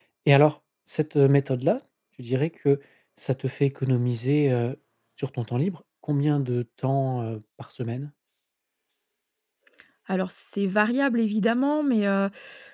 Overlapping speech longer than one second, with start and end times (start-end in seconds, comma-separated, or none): none